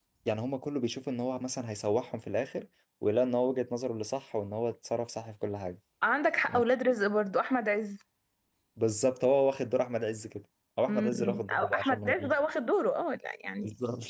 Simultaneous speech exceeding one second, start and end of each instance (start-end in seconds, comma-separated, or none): 10.9-12.3